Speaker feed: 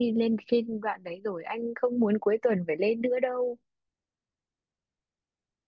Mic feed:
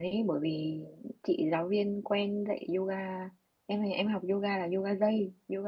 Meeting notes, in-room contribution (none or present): present